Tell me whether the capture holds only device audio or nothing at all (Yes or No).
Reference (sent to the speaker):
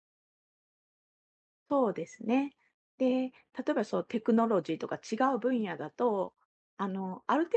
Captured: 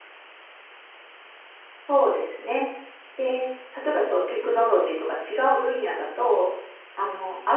Yes